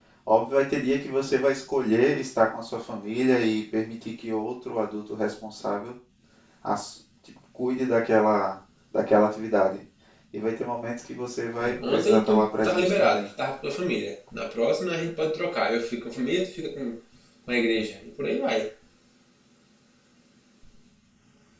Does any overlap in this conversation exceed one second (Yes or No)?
Yes